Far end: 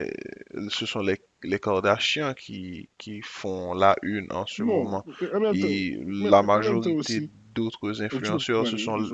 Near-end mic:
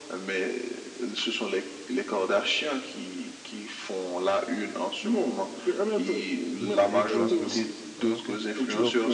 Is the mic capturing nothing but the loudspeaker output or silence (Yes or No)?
No